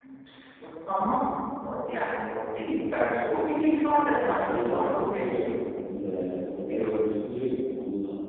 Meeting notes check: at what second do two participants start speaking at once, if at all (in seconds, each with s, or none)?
4.2 s